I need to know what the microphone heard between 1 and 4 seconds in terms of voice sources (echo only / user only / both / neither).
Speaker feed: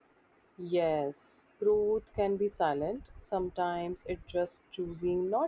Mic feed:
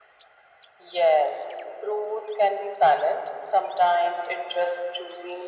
echo only